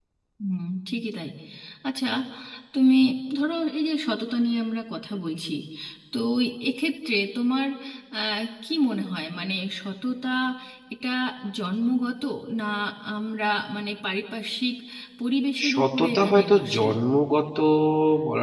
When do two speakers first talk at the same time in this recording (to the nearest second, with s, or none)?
16 s